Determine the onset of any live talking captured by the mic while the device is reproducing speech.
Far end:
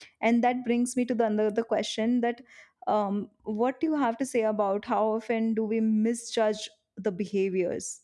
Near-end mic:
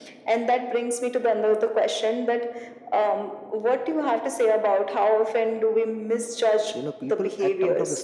6.7 s

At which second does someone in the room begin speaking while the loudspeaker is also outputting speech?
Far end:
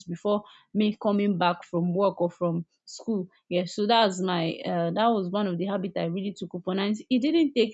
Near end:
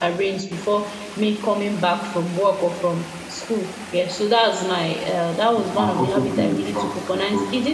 5.6 s

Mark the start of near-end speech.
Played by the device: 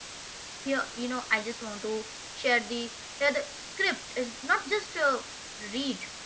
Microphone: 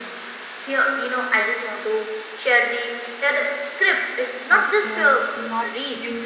4.5 s

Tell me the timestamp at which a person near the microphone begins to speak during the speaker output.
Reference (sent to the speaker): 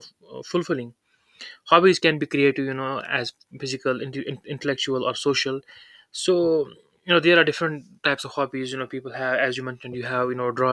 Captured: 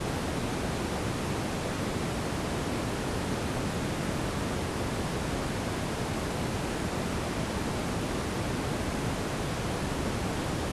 none

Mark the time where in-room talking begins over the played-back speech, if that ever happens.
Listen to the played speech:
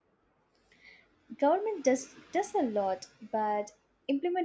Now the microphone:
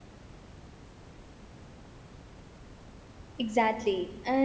3.4 s

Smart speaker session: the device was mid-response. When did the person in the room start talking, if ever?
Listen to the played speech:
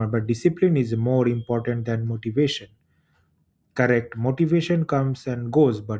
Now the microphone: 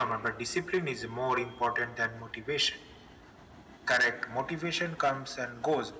none

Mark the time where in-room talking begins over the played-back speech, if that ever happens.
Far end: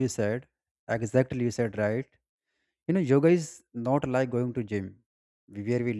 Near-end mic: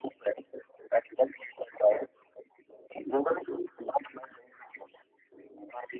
none

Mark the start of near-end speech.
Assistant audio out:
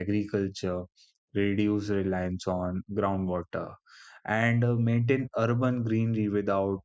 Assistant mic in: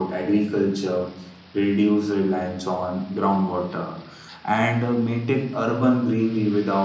none

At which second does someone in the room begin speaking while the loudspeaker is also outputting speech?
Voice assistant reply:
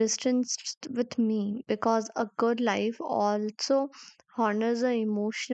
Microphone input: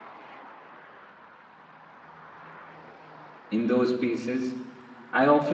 3.5 s

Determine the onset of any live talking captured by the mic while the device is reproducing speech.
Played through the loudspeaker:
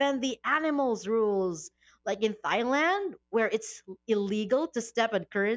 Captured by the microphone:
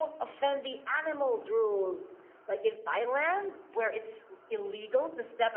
none

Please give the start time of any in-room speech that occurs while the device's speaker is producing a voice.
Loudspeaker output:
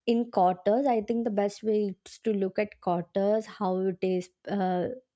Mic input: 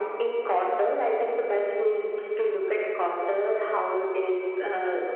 none

